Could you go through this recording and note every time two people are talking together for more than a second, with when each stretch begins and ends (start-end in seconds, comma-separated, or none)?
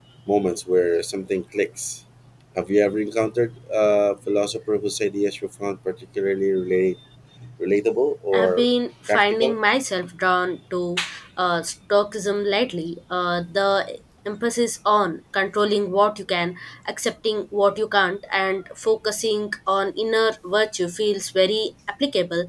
none